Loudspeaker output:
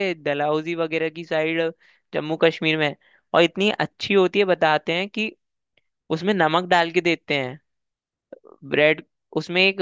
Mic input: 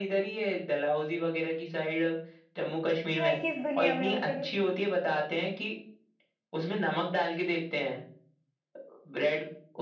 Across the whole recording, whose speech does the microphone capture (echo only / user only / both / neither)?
both